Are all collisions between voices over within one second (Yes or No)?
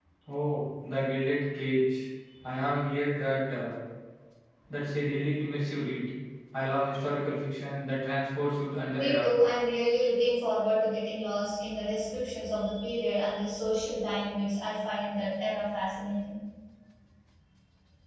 Yes